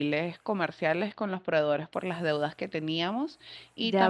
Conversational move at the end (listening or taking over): taking over